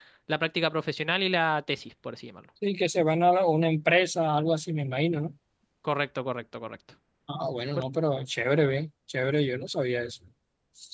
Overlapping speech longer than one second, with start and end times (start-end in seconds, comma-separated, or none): none